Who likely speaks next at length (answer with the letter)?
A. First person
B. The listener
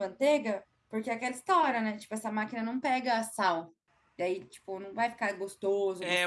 B